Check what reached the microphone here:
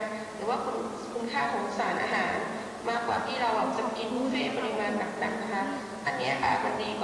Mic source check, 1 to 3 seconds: echo only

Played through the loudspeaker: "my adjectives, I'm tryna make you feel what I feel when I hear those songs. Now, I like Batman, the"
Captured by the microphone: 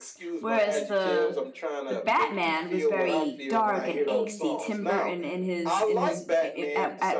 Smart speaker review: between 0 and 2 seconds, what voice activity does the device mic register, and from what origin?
both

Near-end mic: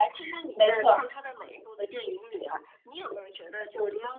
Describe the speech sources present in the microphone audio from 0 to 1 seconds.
both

